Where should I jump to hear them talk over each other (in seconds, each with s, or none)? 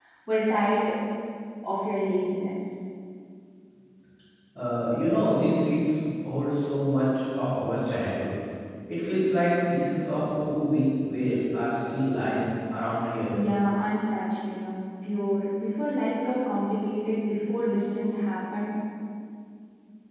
none